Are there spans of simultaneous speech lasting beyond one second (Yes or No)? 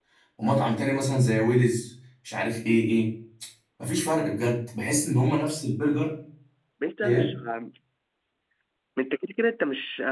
No